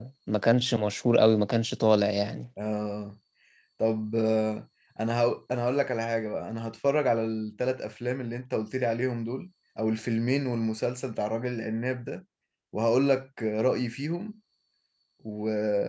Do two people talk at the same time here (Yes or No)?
No